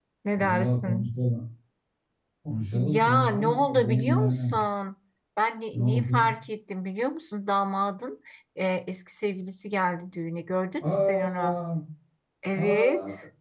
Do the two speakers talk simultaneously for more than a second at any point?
Yes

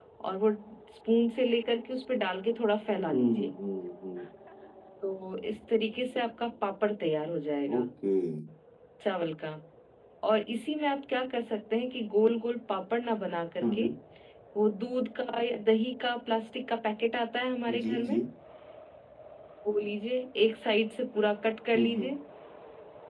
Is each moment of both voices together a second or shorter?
Yes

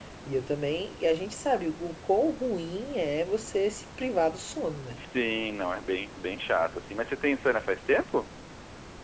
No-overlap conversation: Yes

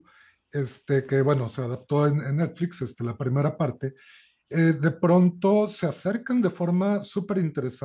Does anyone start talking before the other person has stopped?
No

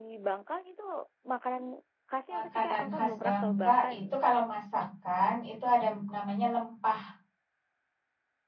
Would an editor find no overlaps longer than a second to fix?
No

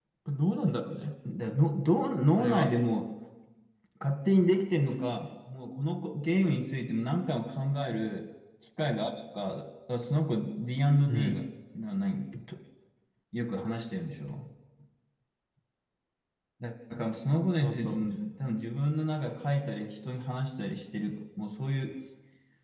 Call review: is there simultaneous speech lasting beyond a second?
No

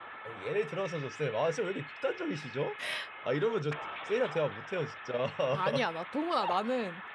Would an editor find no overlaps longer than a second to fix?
Yes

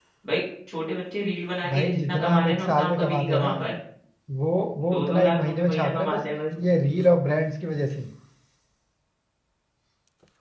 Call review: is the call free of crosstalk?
No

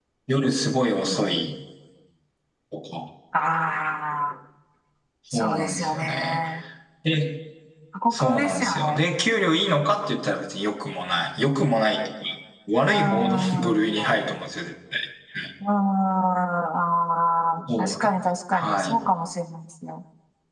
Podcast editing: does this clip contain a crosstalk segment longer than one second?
Yes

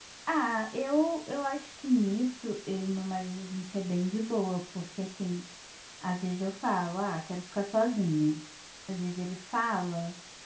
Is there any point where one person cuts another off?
No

